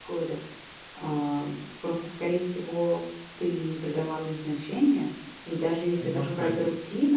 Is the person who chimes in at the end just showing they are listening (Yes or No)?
Yes